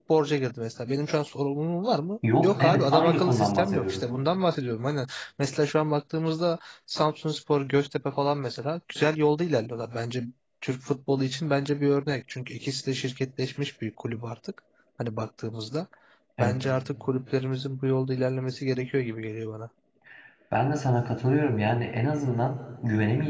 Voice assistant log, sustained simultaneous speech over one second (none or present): present